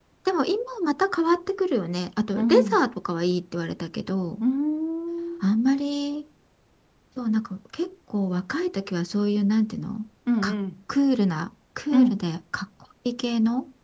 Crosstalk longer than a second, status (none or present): none